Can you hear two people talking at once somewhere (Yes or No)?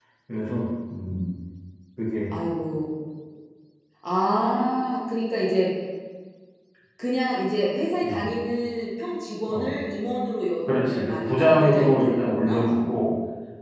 Yes